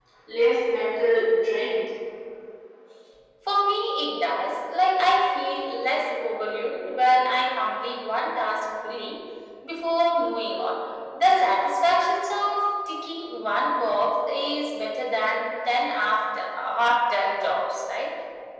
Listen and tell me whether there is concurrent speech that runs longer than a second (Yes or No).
No